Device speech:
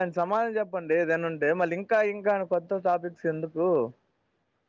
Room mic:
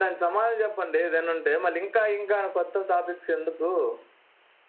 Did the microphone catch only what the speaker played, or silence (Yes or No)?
Yes